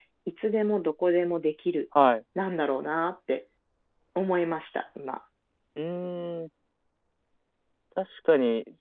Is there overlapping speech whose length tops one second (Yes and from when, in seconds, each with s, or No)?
No